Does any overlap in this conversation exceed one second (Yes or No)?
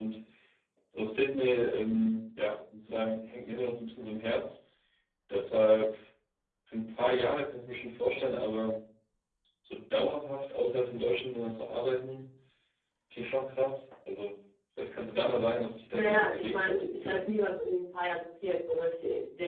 Yes